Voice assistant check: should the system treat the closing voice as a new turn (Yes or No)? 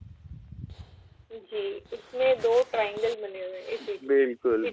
Yes